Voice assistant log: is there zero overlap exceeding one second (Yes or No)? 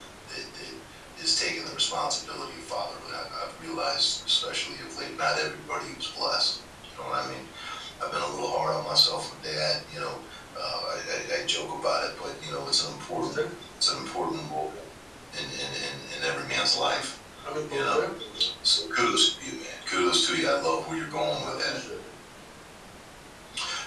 Yes